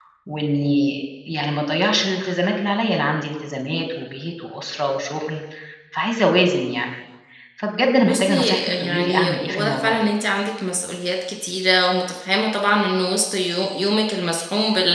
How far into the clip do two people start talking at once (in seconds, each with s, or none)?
8.0 s